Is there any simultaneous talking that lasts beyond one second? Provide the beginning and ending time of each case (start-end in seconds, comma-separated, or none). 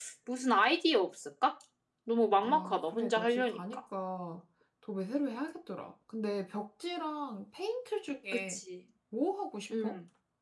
2.4-3.6